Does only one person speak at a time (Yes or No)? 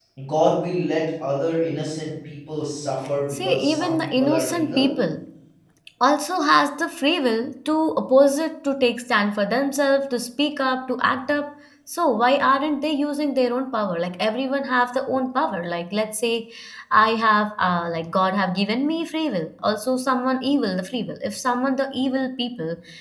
No